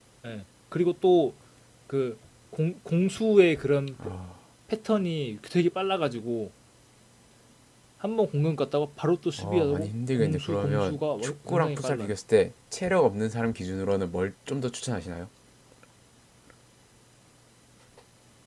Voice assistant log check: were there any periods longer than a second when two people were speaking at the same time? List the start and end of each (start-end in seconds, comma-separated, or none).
9.4-12.1